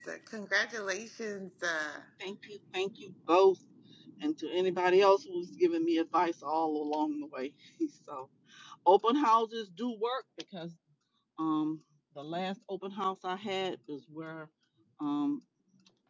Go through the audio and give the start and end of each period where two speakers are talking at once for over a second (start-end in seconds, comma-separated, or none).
none